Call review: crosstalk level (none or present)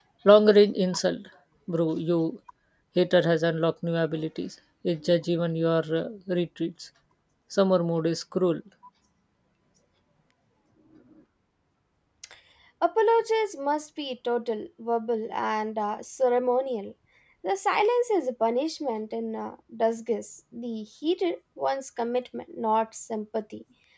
none